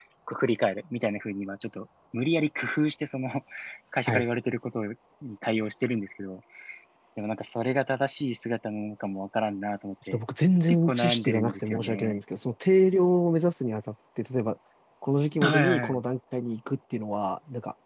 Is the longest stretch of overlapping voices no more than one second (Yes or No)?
No